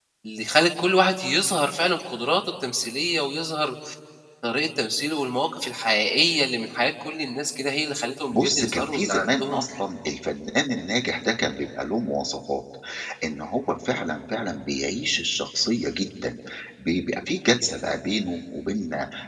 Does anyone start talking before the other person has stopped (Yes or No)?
Yes